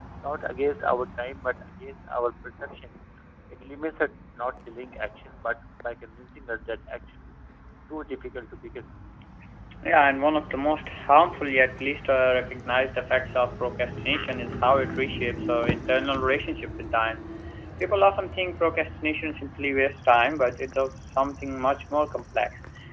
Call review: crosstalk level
none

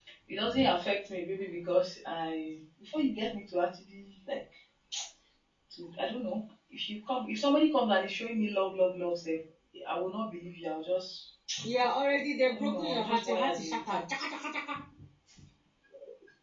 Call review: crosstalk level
present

